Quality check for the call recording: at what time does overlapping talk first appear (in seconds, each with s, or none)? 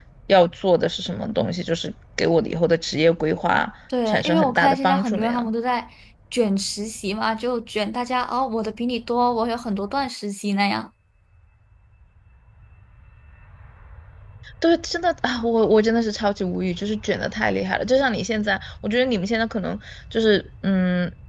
3.9 s